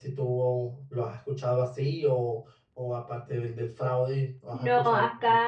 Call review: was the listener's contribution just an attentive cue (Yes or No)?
No